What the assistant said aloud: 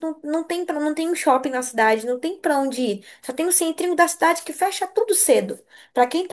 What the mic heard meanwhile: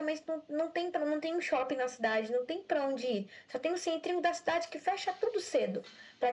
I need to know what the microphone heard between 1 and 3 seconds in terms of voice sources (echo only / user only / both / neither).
echo only